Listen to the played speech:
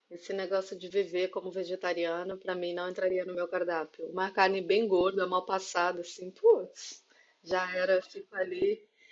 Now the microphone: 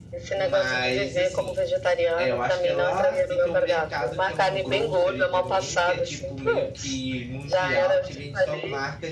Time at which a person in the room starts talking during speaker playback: 0 s

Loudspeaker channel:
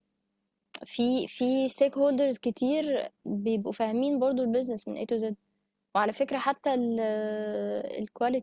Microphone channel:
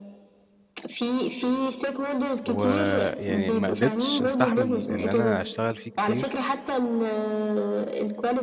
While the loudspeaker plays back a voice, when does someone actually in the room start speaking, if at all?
2 s

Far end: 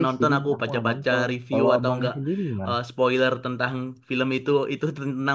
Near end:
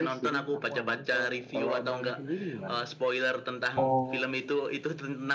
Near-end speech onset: 4 s

